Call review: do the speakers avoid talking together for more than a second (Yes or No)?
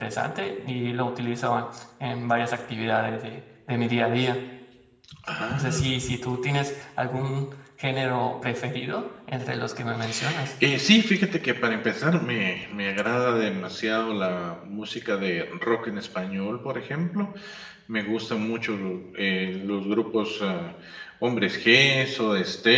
Yes